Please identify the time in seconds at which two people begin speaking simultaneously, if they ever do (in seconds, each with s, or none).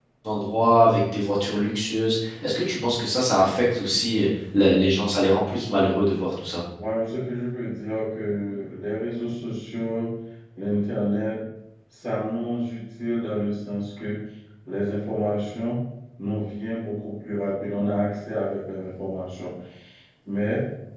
none